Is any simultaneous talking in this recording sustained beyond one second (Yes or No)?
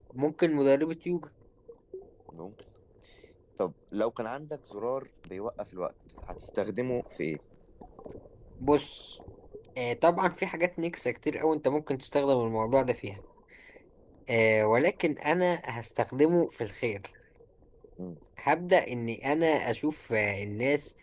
No